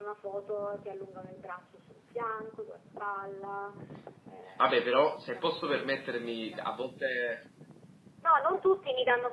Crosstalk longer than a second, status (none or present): present